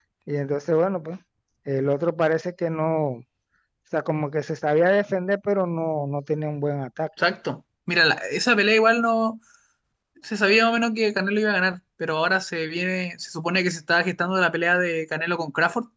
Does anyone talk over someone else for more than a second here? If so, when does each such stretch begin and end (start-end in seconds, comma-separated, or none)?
none